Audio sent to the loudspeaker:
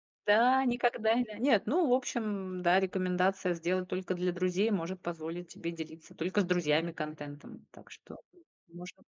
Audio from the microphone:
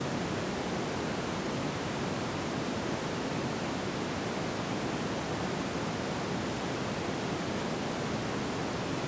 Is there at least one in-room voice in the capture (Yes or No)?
No